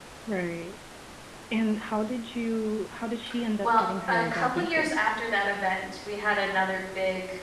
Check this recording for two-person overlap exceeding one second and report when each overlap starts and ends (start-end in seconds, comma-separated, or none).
3.6-5.1